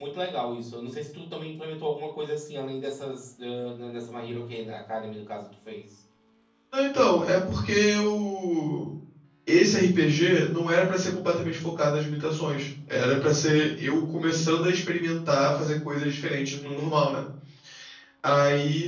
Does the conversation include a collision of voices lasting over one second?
No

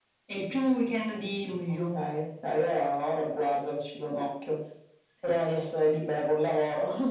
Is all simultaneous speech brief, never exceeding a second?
Yes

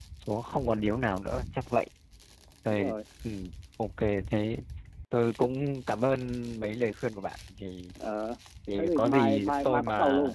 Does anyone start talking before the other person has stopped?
Yes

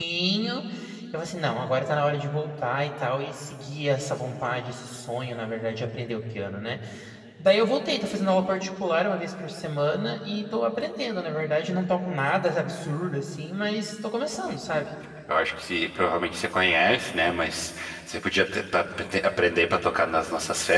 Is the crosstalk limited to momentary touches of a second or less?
Yes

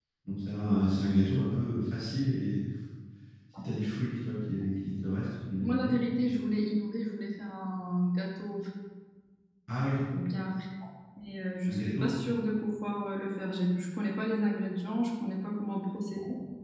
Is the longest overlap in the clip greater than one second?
No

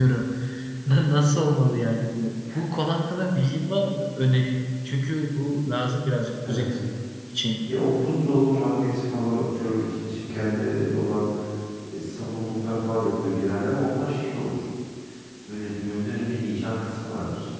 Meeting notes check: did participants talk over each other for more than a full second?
No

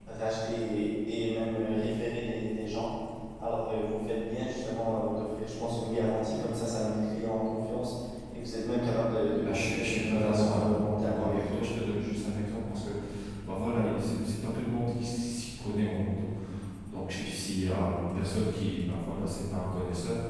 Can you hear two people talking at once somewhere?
Yes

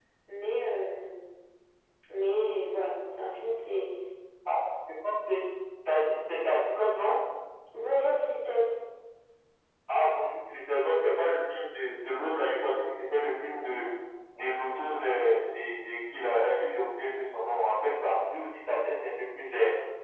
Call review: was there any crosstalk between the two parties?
No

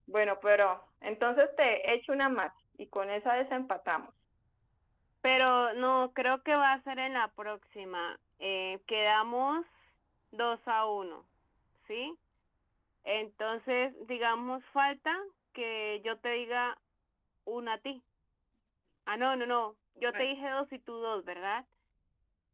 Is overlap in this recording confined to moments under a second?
Yes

